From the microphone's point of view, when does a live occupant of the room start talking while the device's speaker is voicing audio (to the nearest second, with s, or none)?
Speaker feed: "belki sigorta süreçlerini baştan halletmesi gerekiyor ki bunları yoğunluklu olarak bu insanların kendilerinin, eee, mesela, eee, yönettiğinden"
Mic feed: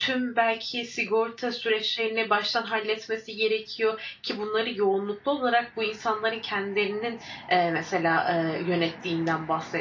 none